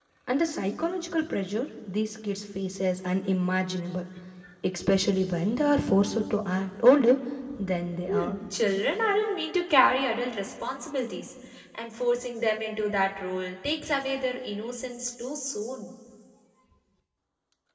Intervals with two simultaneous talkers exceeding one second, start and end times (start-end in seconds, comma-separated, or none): none